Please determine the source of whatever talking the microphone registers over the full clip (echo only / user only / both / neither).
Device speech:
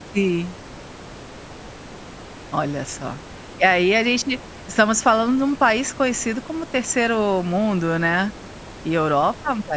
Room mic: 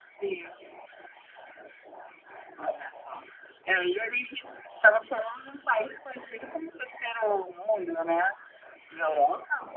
echo only